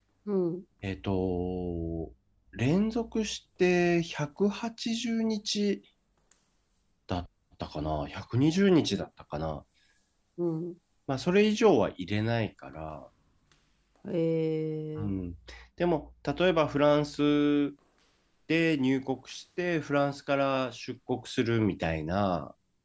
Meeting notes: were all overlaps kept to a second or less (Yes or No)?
Yes